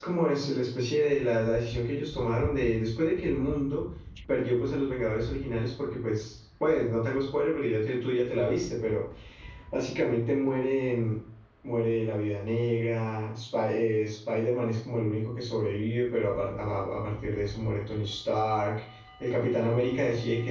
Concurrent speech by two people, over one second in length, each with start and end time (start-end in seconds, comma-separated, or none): none